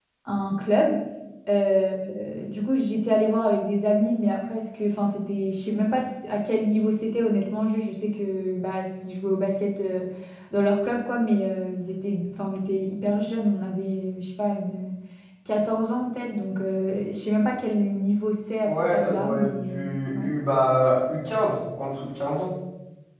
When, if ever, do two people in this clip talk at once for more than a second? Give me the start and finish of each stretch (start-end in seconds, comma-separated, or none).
18.6-20.3